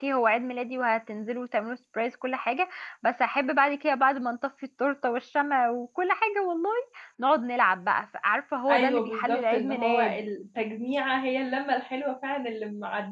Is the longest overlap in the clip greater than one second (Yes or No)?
Yes